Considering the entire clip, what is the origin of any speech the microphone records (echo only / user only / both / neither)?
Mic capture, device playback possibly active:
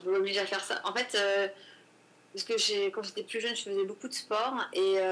echo only